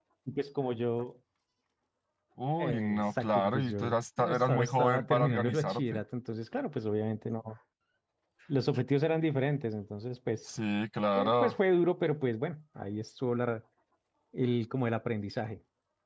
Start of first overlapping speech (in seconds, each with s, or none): 2.6 s